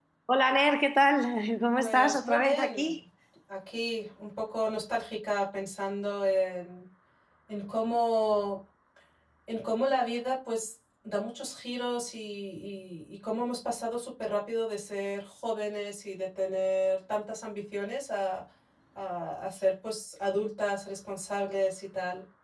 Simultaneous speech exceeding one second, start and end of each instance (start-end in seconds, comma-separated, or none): 1.7-3.0